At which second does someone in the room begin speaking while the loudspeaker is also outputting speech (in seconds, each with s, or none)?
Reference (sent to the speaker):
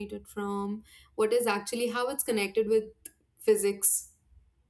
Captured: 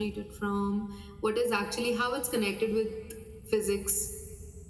none